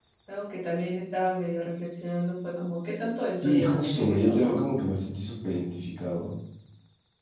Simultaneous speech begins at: 3.4 s

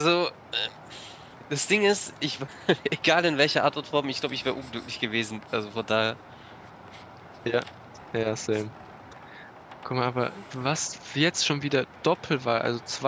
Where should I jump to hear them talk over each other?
none

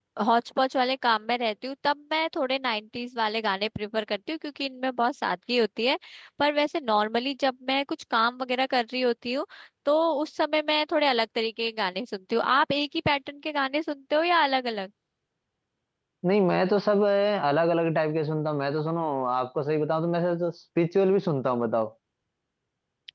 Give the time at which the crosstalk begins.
none

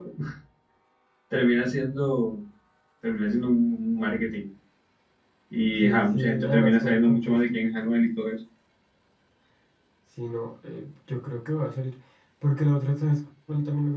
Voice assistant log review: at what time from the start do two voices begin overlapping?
5.8 s

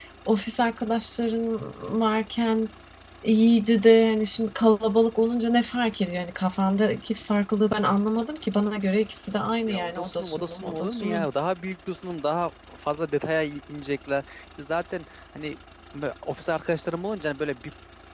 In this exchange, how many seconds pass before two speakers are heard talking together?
9.6 s

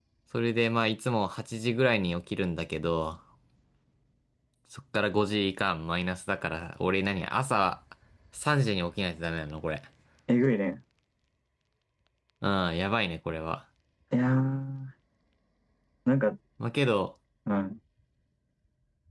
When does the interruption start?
none

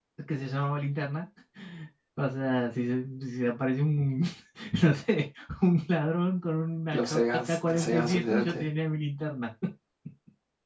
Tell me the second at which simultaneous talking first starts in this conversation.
6.9 s

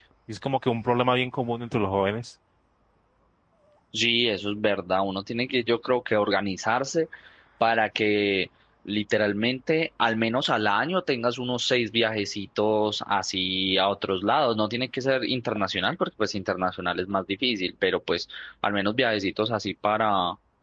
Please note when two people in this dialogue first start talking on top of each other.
none

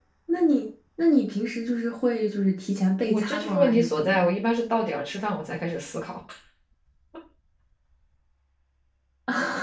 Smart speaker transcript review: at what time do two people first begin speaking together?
3.1 s

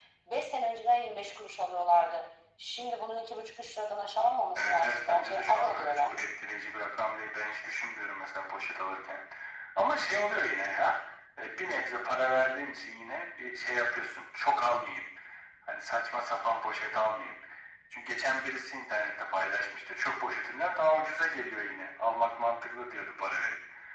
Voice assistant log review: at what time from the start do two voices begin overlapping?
4.5 s

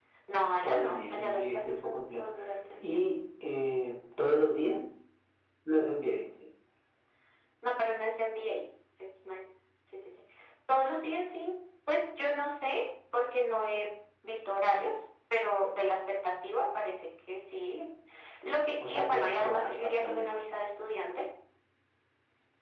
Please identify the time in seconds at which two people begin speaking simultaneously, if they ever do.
0.6 s

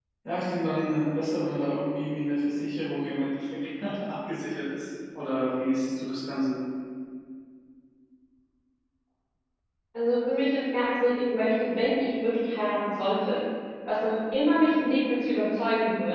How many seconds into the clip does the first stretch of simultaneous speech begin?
none

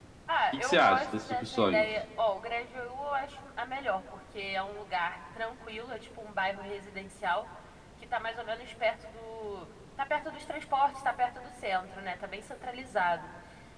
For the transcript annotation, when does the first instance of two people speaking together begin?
0.5 s

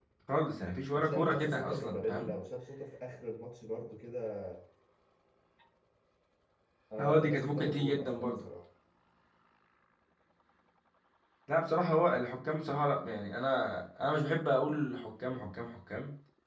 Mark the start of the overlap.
0.9 s

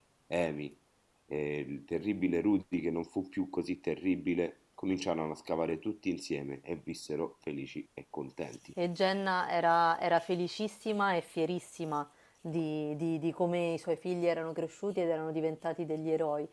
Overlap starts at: none

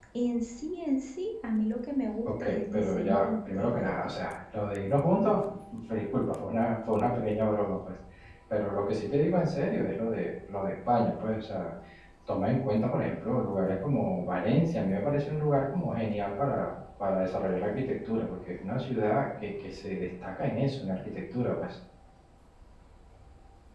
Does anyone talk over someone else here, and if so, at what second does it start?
2.2 s

